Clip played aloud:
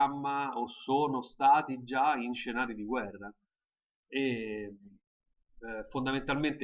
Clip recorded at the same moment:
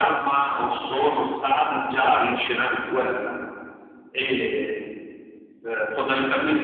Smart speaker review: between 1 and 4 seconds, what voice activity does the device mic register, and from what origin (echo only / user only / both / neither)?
echo only